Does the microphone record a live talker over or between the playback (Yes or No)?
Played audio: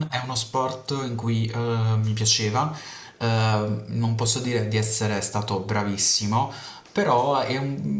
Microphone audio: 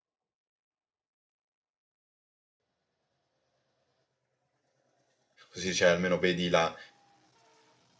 Yes